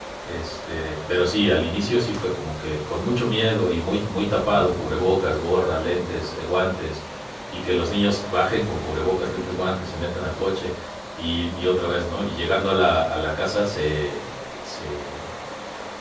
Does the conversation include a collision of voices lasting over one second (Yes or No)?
No